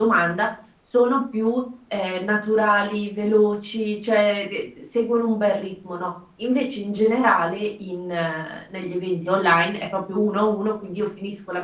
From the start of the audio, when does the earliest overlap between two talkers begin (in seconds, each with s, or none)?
none